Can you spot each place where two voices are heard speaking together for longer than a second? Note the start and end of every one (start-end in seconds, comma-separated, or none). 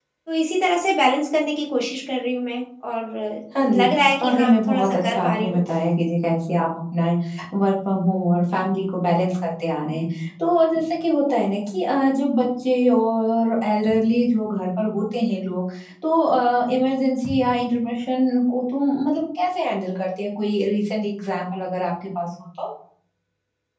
4.2-5.6